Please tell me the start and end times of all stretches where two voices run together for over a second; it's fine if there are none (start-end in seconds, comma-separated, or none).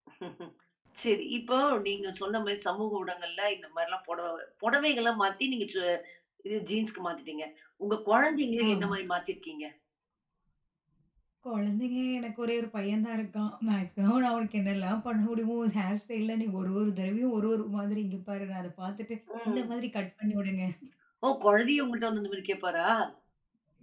none